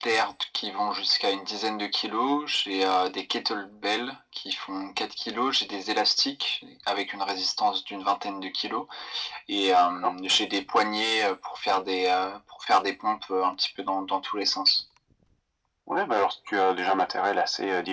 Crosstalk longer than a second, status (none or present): none